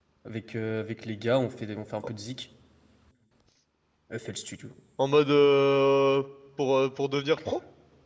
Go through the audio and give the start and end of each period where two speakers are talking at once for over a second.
none

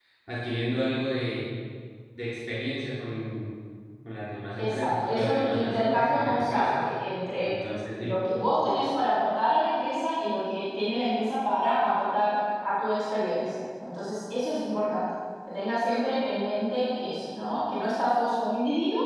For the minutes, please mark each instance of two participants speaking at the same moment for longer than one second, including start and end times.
4.6-6.8

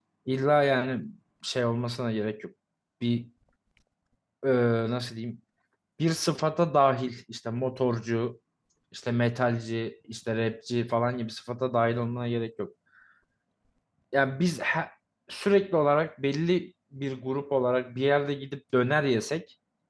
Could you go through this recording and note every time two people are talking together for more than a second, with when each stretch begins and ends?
none

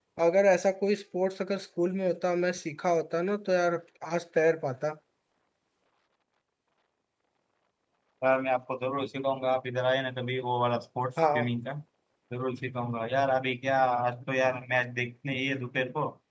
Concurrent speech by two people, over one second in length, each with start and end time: none

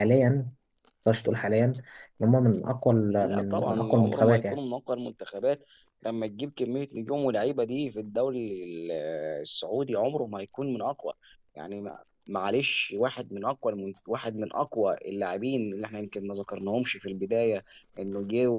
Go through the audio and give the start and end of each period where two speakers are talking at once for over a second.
3.2-4.6

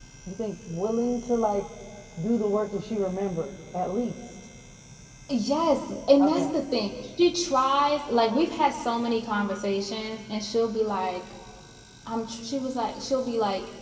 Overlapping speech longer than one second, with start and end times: none

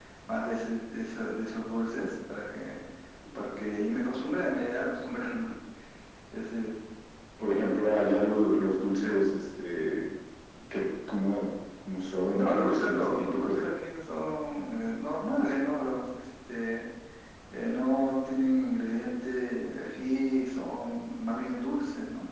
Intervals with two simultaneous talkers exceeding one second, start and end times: 12.3-13.7

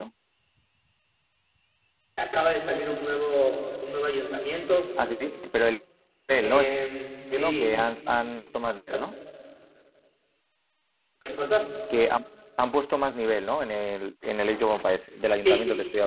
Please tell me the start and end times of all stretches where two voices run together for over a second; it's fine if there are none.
none

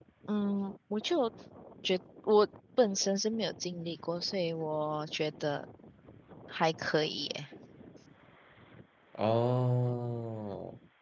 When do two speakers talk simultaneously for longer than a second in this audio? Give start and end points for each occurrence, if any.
none

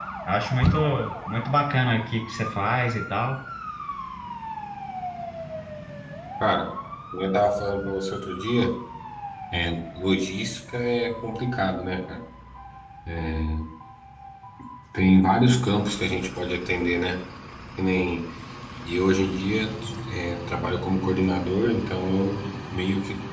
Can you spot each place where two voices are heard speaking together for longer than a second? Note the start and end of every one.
none

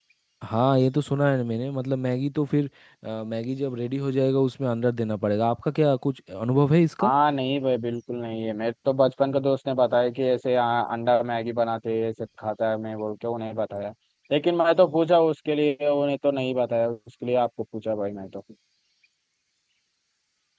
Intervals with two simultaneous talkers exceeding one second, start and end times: none

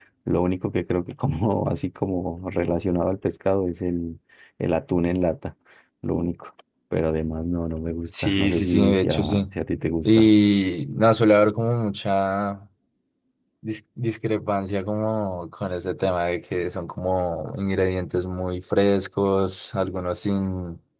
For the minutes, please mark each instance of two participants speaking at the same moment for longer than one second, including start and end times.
8.1-9.4

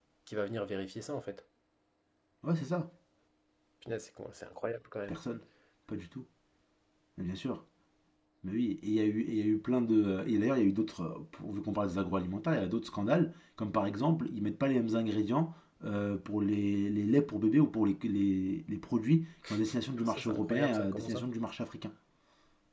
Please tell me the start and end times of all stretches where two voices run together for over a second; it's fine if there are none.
20.0-21.2

